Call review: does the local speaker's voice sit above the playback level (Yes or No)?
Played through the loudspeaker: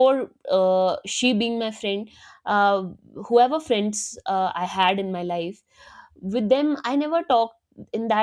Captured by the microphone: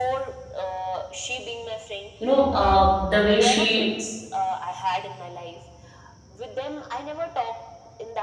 Yes